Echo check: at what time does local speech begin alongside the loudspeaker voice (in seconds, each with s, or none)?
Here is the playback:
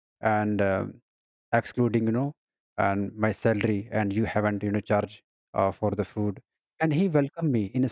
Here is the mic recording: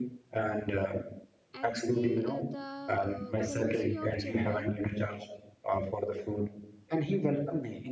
1.5 s